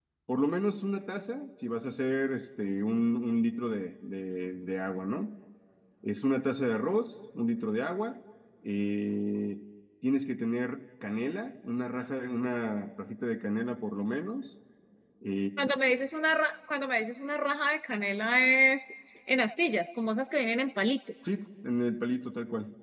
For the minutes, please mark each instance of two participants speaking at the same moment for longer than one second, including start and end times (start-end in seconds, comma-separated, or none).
none